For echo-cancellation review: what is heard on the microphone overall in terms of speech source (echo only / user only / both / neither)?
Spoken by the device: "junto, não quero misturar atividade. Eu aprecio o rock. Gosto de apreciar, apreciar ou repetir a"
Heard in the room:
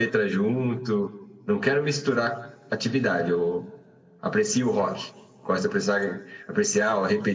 echo only